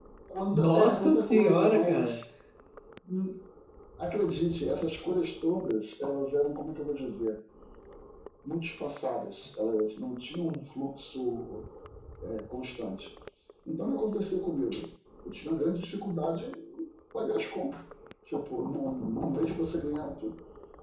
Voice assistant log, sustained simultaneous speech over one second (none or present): present